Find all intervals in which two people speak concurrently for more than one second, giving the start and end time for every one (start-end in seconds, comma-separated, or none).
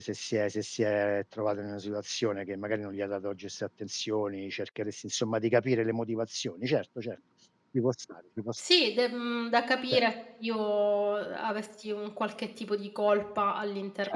none